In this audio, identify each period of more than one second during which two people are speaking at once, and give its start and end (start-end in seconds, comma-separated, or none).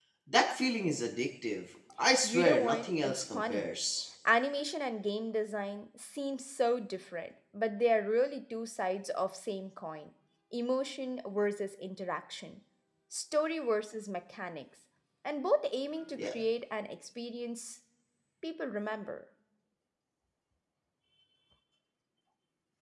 2.2-3.7